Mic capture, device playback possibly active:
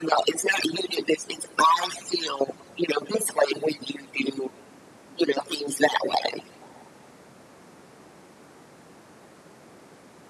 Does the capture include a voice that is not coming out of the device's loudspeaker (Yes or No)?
No